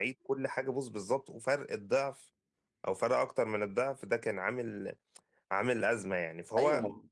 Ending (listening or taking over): taking over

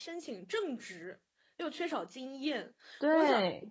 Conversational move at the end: listening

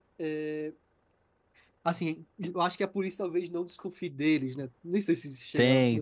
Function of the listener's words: taking over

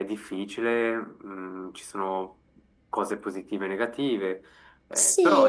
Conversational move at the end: taking over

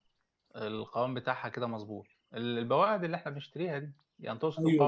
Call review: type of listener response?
taking over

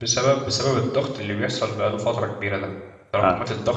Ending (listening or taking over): listening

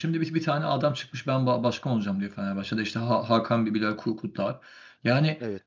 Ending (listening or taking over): listening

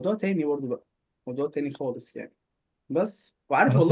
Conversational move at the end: taking over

